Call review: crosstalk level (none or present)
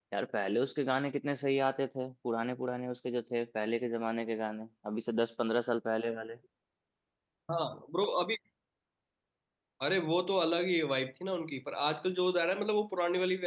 none